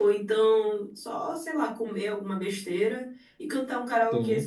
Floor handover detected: No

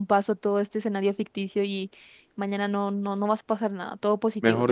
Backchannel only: No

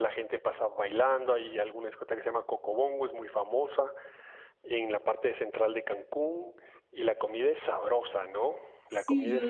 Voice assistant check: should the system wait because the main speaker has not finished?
No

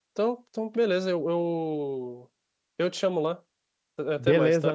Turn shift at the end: Yes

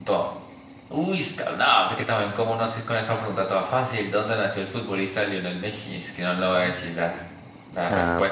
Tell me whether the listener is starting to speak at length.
Yes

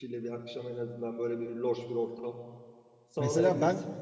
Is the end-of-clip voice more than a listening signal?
Yes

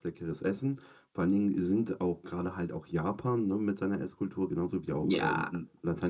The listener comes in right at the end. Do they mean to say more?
No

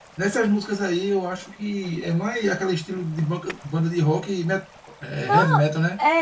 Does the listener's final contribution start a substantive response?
Yes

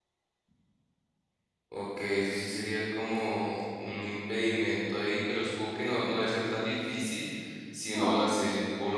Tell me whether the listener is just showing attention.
Yes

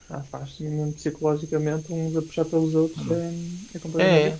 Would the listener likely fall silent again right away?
No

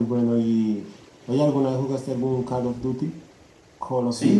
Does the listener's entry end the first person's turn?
Yes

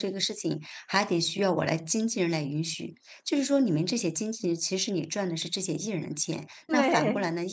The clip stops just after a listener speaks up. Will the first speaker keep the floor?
Yes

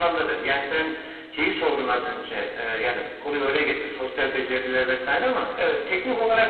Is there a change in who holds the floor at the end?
No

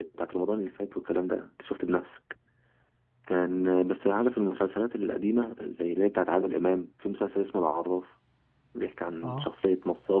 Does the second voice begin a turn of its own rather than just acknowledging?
No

